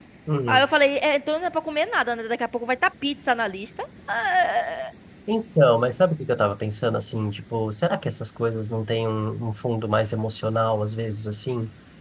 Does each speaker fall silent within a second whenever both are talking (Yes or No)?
Yes